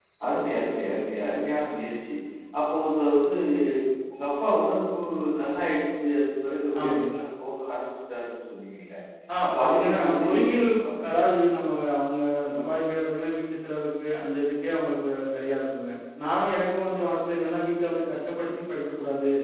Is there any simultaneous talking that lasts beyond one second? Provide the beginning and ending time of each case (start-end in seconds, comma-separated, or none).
9.4-10.7